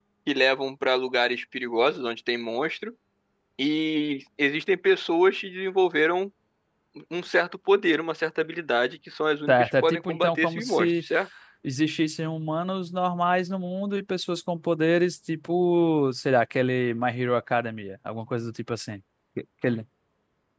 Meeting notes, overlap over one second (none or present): present